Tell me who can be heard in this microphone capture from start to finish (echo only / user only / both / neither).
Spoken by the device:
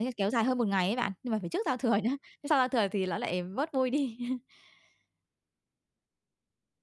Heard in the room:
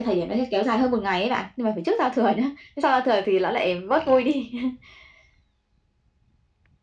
echo only